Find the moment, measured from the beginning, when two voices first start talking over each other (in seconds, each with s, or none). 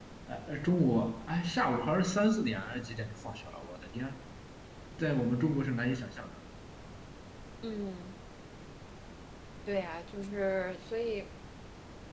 none